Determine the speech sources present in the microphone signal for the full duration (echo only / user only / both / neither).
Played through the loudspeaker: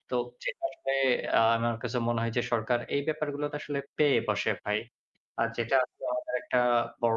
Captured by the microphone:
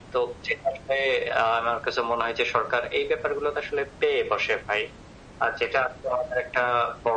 echo only